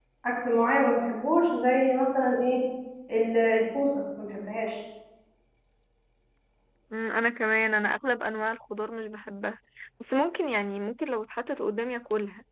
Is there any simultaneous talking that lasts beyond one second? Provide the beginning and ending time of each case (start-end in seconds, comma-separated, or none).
none